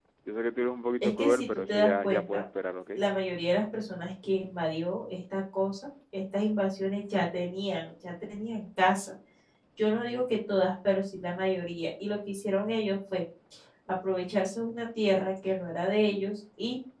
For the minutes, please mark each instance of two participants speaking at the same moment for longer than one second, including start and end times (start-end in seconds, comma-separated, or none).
1.0-2.4